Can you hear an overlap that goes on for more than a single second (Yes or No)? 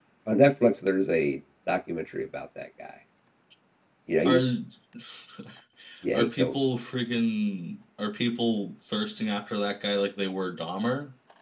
No